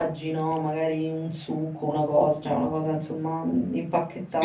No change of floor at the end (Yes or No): No